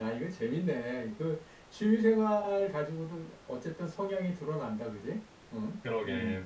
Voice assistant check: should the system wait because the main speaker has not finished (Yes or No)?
No